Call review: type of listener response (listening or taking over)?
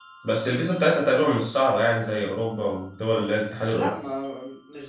taking over